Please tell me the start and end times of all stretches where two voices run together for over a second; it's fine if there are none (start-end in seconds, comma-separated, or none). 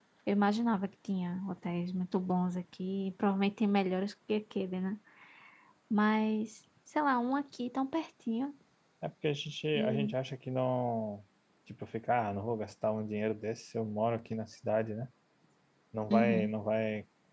none